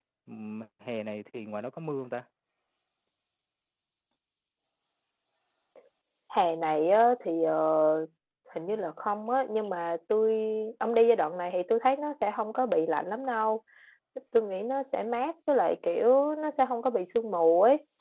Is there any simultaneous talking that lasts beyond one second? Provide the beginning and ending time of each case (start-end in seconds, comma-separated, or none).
none